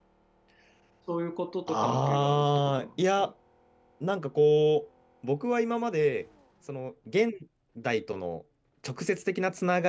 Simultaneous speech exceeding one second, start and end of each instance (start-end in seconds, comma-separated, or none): 1.7-3.3